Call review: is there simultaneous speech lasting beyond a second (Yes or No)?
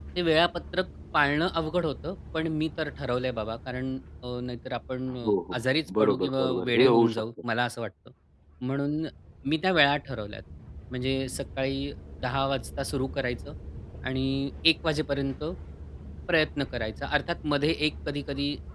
Yes